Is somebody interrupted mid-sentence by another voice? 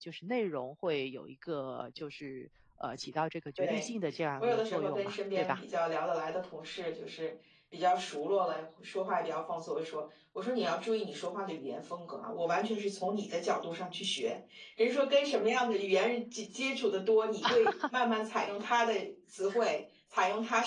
Yes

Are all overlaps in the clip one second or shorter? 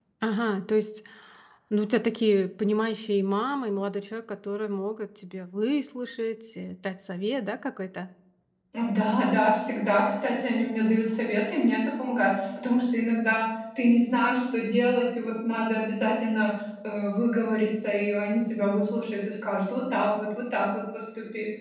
Yes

